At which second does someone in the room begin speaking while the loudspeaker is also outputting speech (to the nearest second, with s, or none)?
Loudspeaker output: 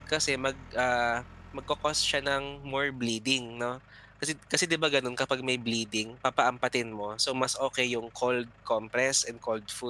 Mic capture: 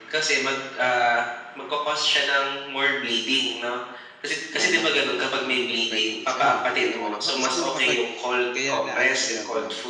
5 s